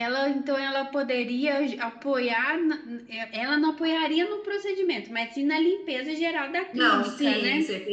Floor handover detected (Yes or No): Yes